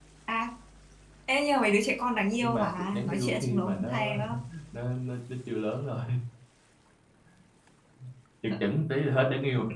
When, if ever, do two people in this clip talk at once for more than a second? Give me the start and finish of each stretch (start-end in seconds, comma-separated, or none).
2.4-4.1